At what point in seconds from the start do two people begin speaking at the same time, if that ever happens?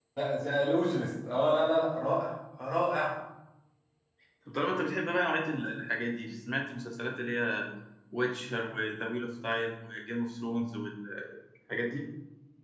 none

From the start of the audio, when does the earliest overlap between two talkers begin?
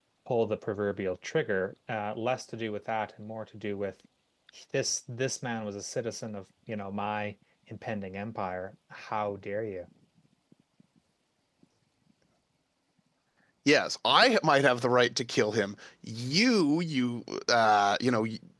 none

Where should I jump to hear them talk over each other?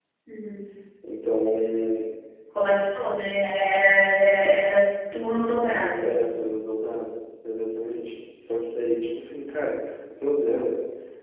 none

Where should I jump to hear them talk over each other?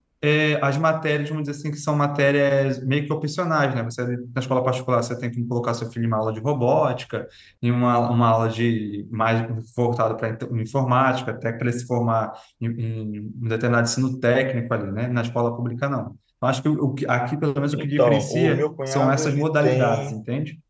17.7 s

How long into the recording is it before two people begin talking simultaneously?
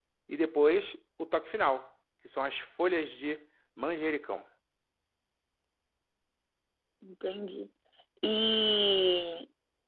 none

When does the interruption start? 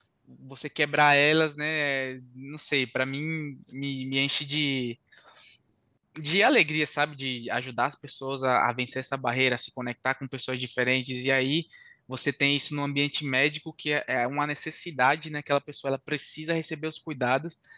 none

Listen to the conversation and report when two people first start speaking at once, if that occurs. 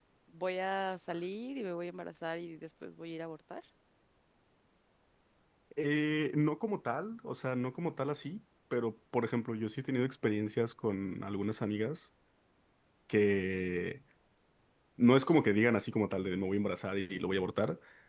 none

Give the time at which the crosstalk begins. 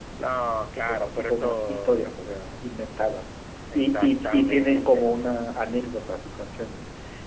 0.9 s

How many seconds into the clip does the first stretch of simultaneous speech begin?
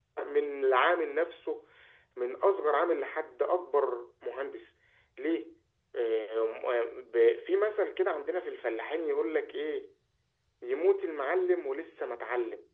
none

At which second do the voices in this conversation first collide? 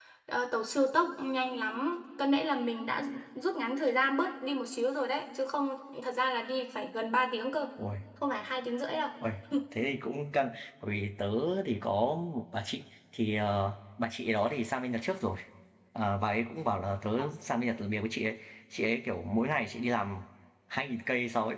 none

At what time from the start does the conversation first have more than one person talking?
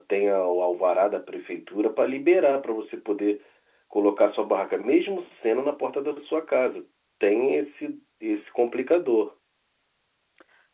none

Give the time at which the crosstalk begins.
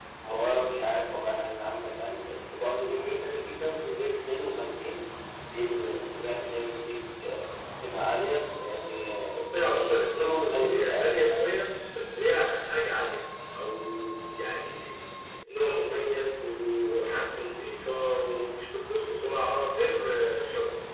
10.2 s

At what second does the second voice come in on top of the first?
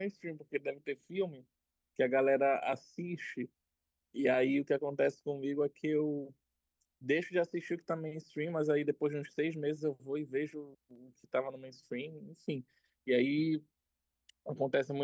none

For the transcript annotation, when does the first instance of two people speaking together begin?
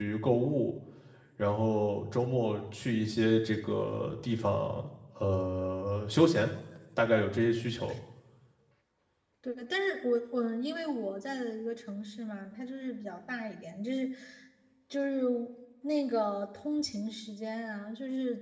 none

